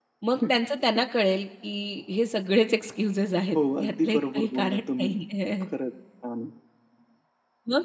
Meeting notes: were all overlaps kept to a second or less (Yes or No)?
No